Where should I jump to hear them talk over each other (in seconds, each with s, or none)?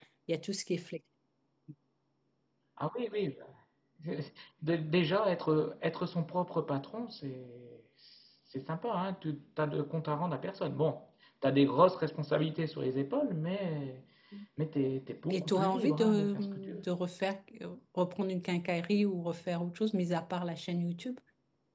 15.3 s